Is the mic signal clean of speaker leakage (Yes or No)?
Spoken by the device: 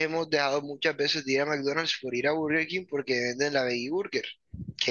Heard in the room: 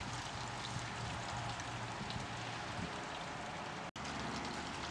Yes